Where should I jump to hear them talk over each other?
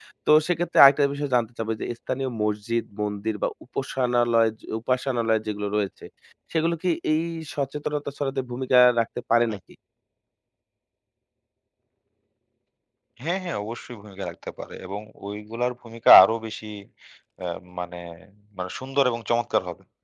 none

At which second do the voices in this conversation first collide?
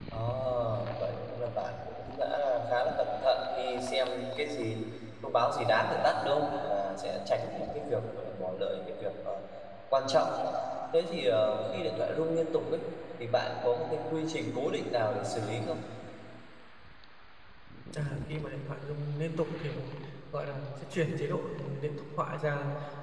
none

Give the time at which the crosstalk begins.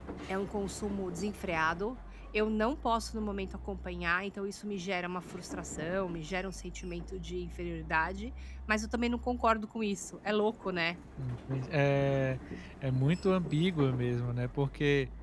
none

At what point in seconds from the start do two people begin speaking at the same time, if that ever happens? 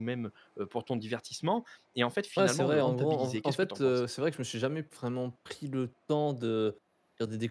2.4 s

